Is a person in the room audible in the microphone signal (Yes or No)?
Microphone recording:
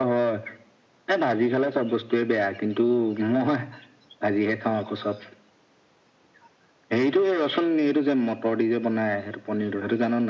No